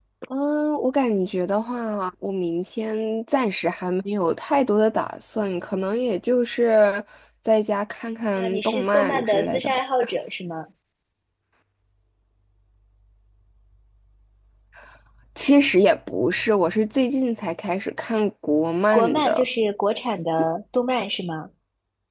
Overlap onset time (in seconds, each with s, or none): 8.4 s